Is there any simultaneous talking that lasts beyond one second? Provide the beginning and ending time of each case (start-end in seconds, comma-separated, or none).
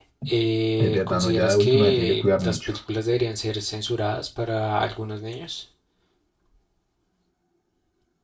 0.8-2.7